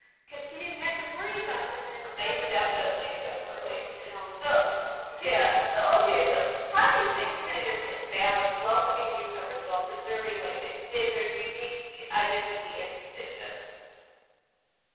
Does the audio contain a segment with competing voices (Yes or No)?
Yes